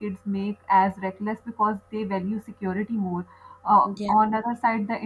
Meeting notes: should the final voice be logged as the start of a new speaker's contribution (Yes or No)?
No